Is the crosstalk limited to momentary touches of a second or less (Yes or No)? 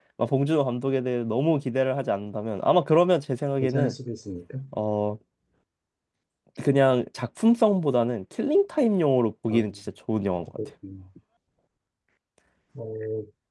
Yes